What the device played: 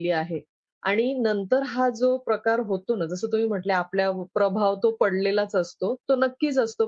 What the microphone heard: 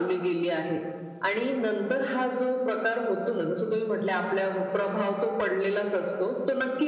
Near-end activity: none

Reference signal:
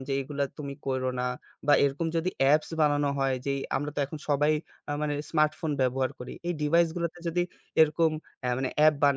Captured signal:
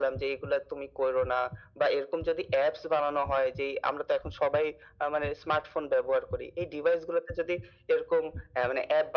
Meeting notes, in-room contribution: none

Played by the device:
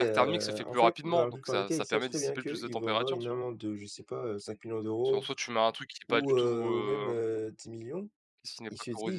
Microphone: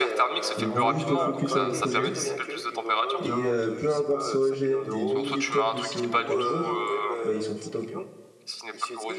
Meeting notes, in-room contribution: present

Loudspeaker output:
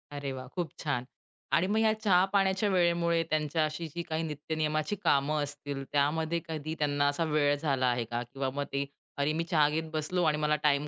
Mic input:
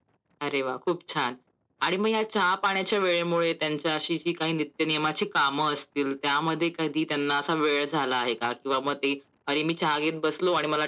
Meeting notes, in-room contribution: none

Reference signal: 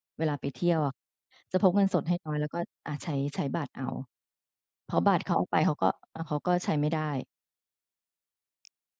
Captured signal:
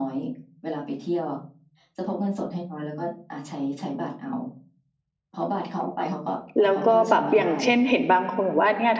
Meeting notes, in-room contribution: present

